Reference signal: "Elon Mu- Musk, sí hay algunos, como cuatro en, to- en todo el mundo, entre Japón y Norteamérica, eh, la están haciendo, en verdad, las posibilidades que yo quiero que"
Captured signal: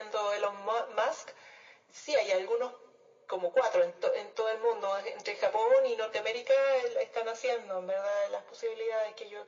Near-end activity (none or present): none